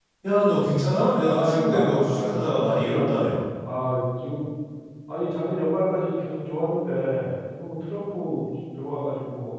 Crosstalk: present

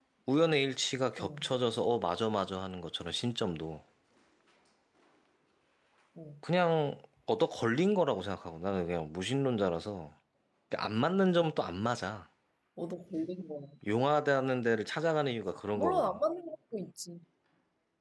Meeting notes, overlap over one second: none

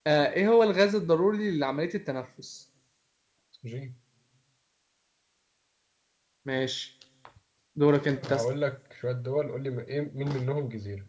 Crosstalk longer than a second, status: none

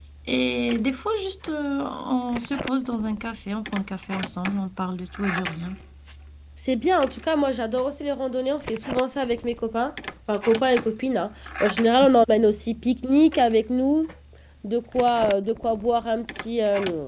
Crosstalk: none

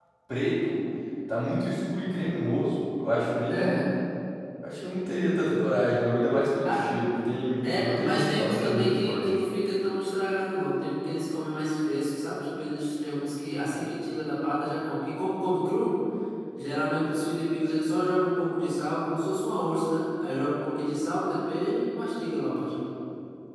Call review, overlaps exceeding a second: present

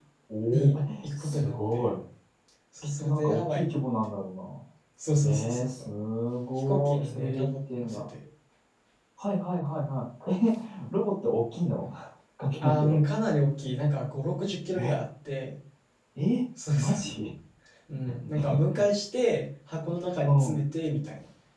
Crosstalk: present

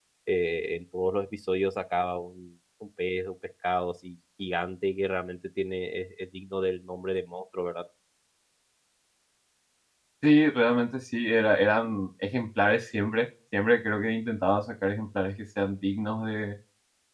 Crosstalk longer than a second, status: none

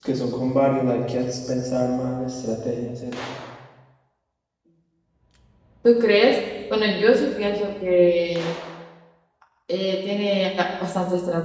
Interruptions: none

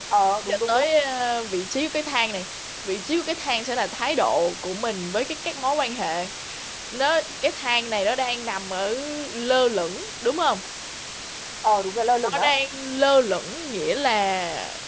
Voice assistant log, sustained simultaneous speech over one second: none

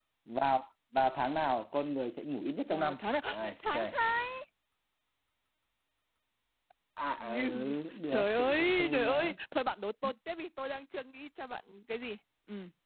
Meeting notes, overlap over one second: present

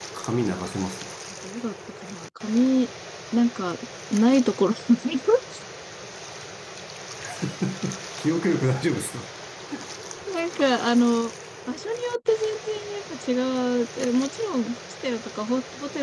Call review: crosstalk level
none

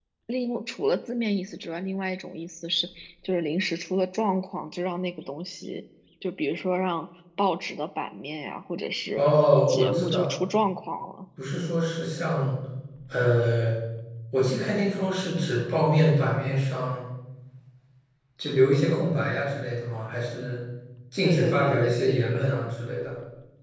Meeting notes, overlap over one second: present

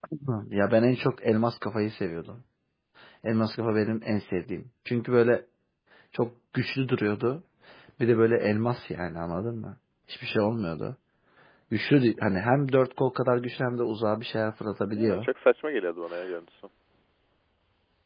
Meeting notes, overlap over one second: none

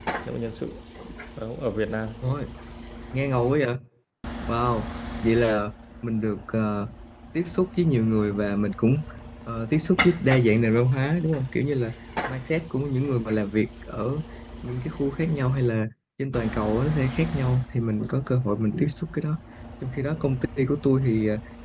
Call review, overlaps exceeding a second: none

